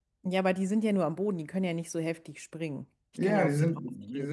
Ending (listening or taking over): taking over